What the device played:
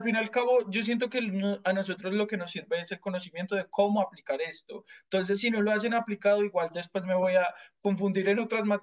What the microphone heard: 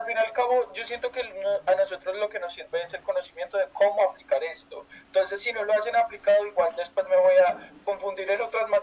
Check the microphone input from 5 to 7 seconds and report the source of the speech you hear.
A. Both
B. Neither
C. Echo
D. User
C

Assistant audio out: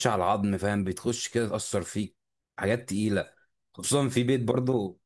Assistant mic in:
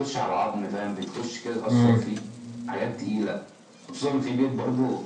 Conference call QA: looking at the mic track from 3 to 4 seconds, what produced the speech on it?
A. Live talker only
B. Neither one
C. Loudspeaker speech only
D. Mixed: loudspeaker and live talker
C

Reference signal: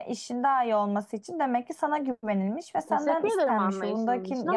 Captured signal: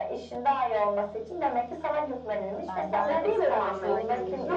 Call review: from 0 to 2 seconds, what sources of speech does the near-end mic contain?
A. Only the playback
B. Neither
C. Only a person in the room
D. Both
A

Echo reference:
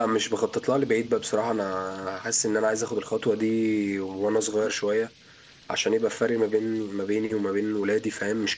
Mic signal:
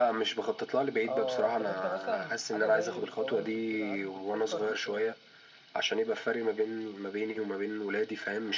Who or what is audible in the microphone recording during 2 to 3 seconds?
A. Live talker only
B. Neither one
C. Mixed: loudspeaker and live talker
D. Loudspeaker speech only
C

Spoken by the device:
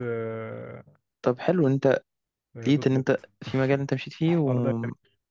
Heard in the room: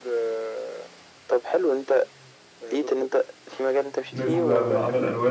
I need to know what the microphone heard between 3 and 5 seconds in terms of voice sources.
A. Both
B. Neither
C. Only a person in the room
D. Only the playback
A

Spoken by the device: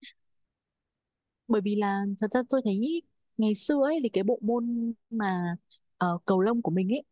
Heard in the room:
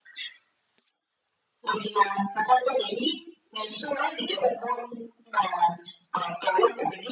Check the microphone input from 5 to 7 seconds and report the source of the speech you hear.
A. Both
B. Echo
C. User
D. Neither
B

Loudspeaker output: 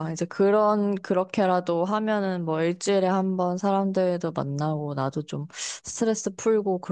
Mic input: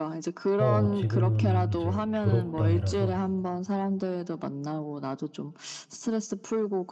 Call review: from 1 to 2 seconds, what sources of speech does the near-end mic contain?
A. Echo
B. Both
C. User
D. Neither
B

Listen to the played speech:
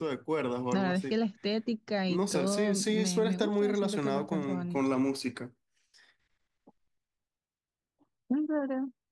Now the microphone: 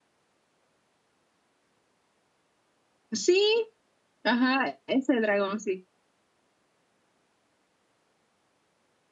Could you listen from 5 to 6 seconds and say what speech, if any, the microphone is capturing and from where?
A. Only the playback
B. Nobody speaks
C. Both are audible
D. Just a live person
D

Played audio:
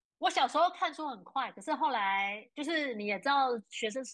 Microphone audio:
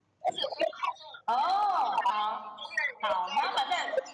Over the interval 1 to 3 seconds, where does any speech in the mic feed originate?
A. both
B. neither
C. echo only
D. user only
A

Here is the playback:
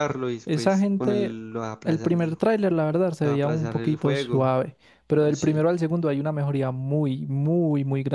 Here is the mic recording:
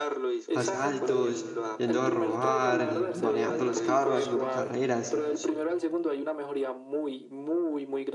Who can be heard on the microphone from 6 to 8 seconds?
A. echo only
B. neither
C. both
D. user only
A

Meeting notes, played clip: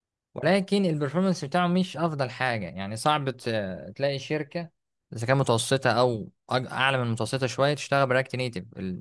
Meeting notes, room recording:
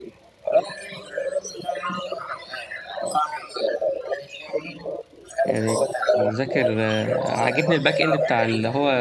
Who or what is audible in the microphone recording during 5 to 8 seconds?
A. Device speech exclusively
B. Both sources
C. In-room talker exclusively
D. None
B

